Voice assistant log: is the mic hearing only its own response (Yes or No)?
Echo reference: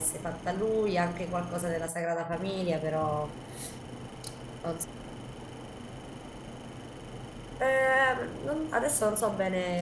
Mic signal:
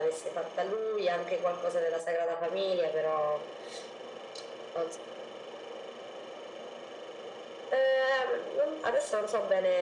Yes